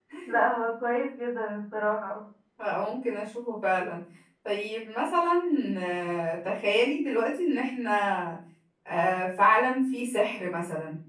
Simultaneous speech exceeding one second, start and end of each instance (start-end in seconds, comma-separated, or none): none